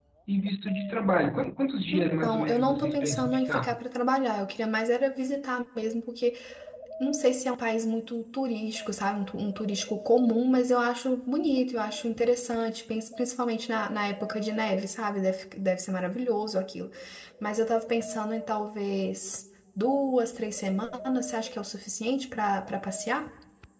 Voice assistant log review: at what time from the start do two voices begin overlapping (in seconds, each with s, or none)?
1.9 s